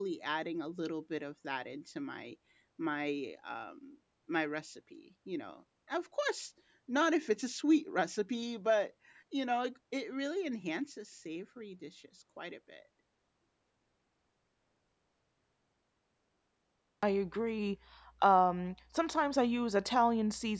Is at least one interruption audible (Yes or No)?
No